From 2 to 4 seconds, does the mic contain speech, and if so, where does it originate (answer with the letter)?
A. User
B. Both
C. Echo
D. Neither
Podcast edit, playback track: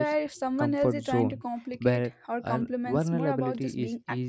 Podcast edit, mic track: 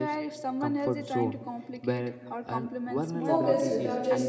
B